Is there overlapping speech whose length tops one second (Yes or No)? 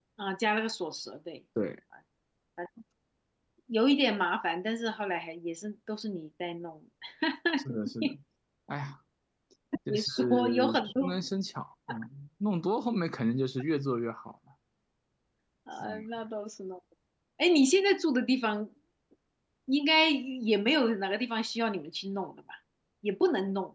Yes